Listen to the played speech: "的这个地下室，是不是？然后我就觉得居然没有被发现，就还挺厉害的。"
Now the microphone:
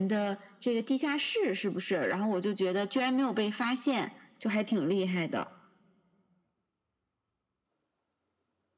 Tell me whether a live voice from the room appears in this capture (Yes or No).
No